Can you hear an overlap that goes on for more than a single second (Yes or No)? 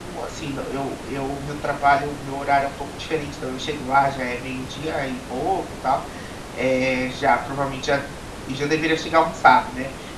No